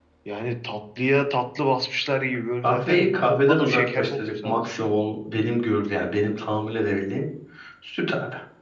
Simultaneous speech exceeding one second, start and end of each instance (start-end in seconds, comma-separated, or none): 2.6-4.7